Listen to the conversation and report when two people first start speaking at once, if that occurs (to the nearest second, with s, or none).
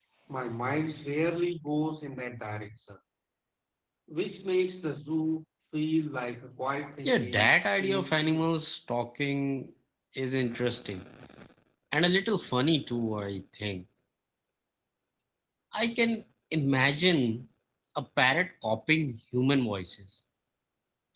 7 s